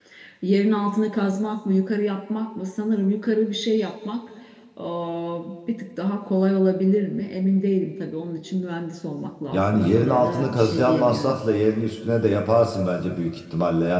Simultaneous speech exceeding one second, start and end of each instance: 9.5-11.4

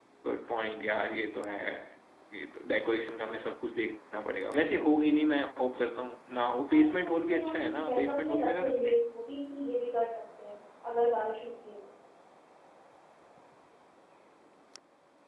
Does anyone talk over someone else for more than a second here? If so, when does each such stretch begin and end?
6.7-9.0

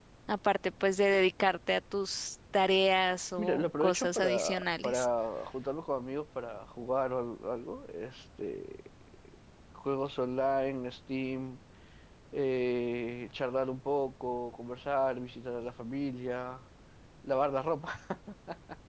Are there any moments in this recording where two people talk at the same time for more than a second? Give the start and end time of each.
3.4-5.1

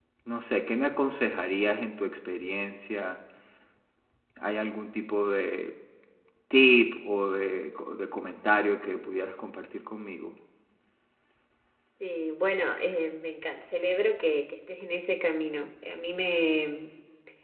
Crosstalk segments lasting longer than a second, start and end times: none

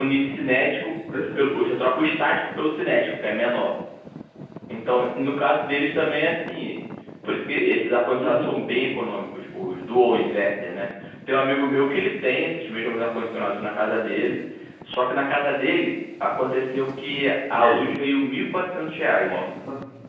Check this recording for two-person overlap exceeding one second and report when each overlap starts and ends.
none

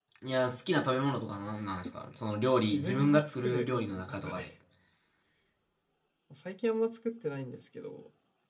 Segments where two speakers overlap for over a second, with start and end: 2.7-4.5

